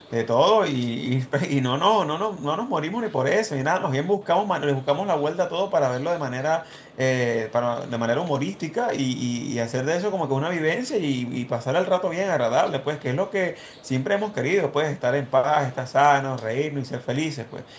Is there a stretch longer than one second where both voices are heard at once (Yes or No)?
No